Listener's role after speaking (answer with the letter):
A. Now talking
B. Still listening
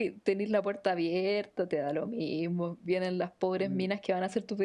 B